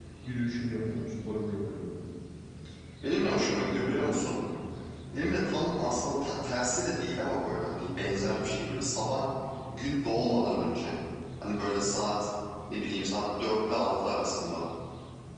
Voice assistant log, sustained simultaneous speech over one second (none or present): present